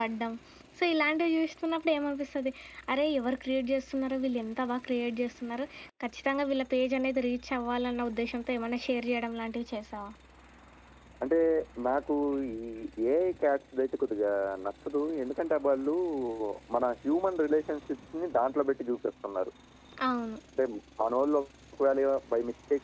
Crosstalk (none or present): none